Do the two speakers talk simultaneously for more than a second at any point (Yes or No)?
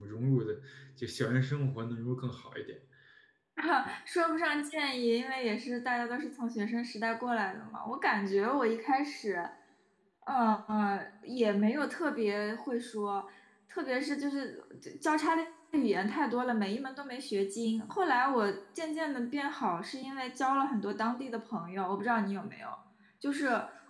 No